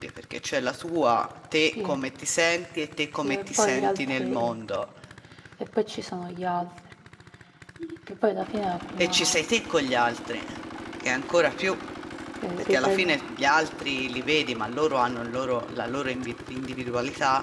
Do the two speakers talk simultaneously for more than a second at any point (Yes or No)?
Yes